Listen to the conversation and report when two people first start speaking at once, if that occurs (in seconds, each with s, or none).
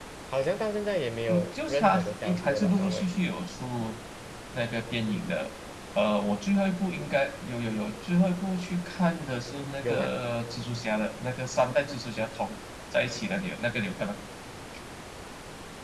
1.3 s